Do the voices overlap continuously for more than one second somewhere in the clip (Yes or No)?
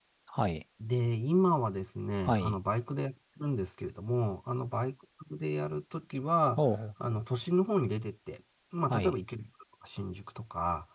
No